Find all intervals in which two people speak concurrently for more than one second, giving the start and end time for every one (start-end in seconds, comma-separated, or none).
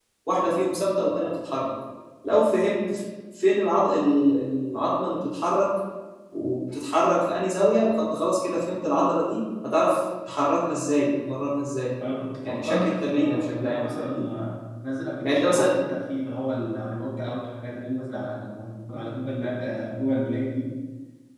12.4-14.2